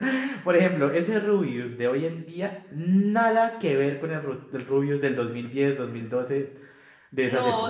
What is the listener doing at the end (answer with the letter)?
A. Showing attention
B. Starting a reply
B